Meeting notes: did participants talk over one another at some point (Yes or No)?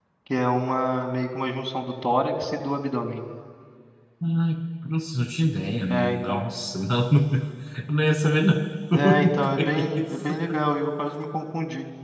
Yes